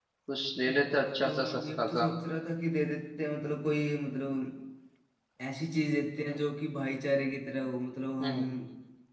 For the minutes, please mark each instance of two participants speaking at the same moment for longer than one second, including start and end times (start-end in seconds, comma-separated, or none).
0.6-2.0